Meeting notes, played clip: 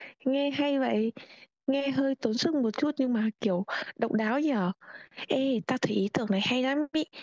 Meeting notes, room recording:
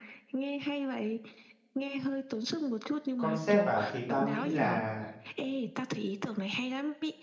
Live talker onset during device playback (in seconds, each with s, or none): 3.2 s